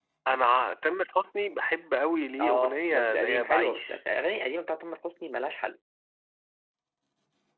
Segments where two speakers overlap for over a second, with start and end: 2.4-4.0

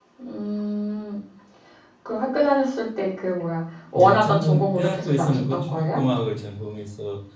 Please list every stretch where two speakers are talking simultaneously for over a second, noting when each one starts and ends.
4.0-6.0

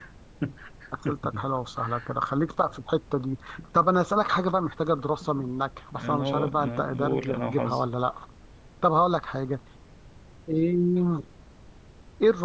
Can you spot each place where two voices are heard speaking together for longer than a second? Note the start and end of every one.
6.0-7.9

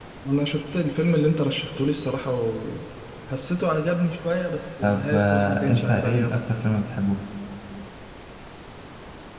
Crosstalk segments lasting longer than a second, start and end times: 4.8-6.4

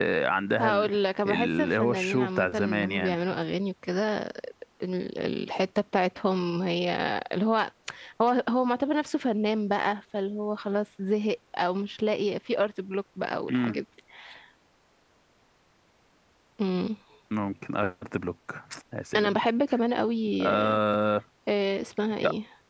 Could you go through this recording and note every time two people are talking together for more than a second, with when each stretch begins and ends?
1.2-3.2

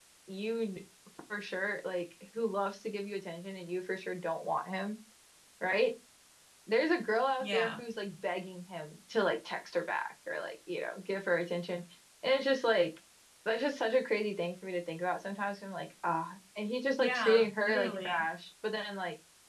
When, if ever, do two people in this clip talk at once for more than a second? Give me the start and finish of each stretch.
17.0-18.2

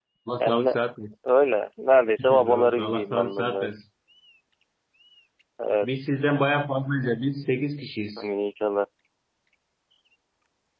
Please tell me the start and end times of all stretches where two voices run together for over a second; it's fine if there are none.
2.3-3.7

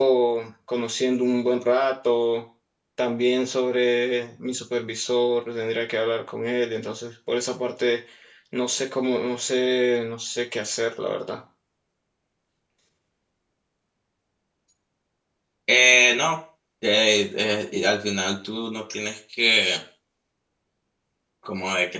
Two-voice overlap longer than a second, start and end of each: none

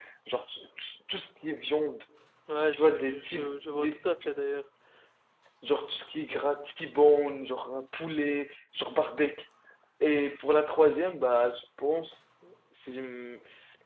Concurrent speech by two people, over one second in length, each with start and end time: 2.7-4.0

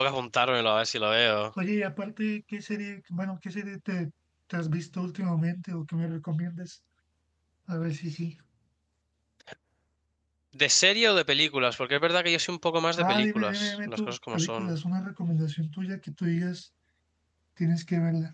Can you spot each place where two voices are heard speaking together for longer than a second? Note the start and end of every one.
13.0-14.7

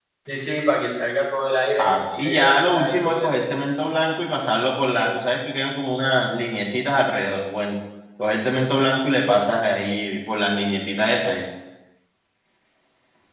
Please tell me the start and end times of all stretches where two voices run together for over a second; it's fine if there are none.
1.8-3.4

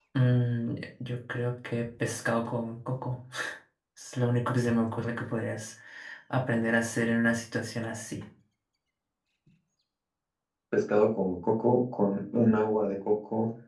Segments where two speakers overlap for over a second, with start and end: none

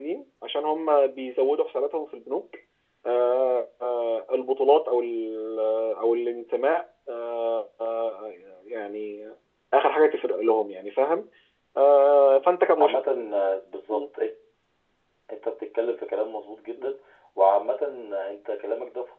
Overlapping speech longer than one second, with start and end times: none

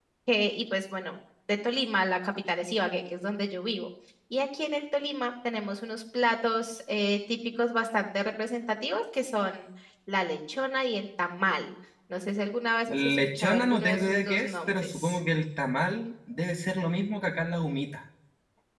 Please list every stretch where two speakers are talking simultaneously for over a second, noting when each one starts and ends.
12.9-15.2

